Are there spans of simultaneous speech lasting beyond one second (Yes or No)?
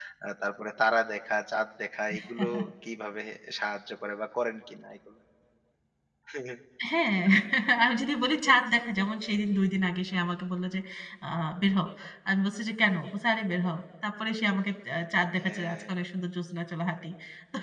No